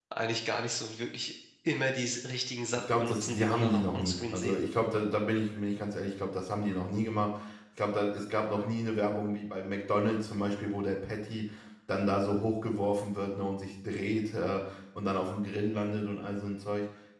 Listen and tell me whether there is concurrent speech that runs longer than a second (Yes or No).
Yes